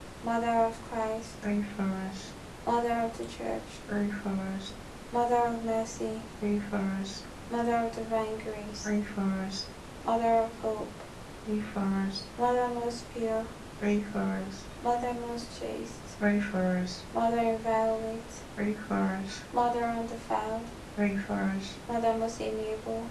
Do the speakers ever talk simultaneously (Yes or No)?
No